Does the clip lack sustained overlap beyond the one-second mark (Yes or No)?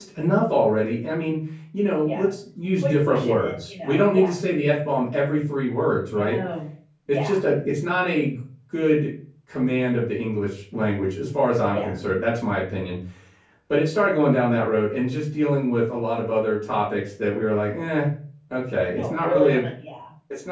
No